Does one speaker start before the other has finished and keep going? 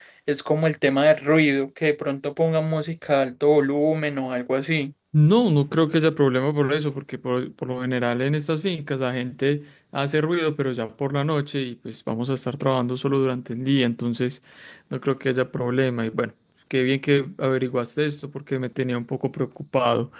No

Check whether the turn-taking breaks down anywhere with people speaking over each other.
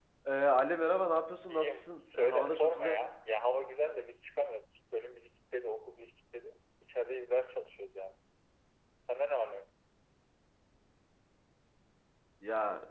Yes, from 1.5 s

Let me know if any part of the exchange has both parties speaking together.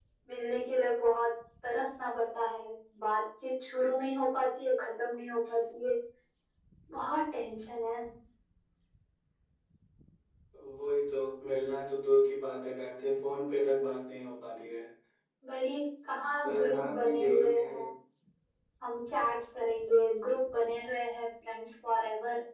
Yes, from 16.4 s

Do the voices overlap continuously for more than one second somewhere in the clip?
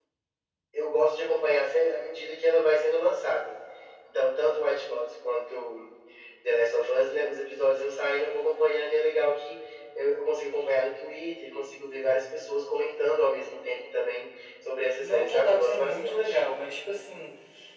Yes, from 15.0 s

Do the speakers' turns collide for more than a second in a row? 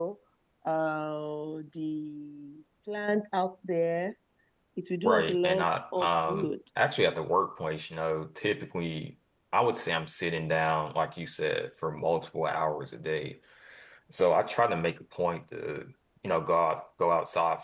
Yes, from 5.0 s

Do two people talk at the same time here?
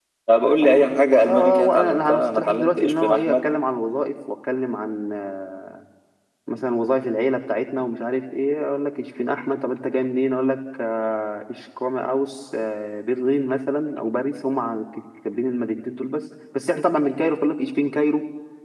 Yes, from 0.6 s

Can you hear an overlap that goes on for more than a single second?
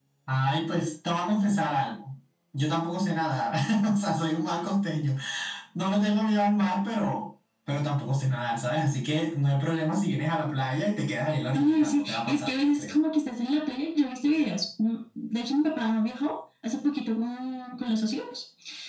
Yes, from 11.6 s

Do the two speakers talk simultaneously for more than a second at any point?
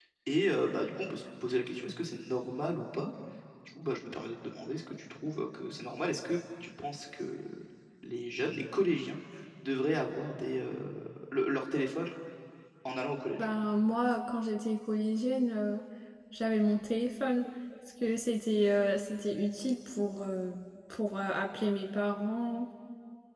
No

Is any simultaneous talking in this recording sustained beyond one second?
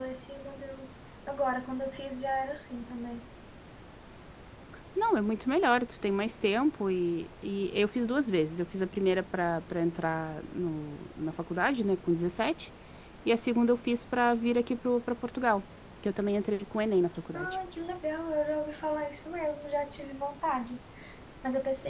No

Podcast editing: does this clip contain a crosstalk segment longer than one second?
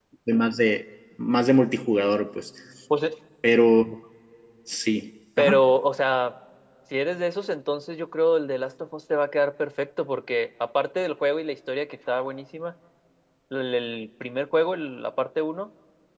No

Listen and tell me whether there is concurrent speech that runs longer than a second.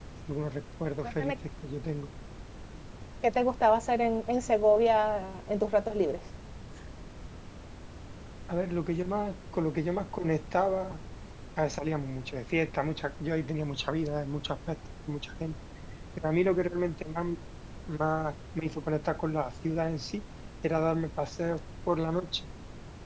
No

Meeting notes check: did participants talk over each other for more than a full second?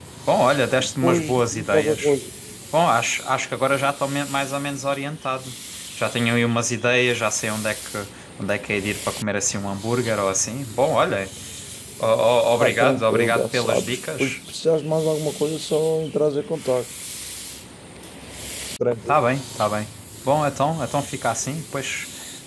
Yes, from 0.8 s

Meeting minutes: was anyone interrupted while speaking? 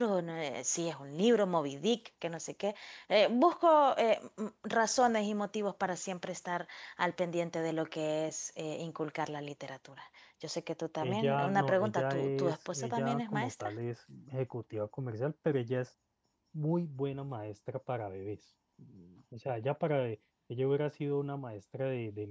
Yes, from 11.0 s

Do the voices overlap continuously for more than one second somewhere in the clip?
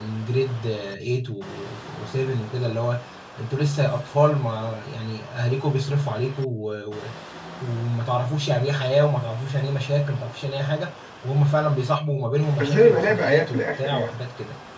Yes, from 12.6 s

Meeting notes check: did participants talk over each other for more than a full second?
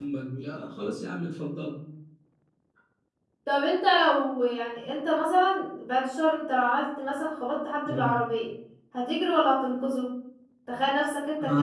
No

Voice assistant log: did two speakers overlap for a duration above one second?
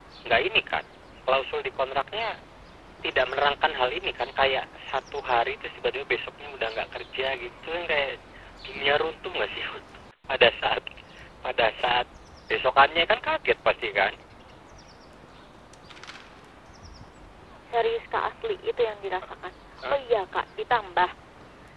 No

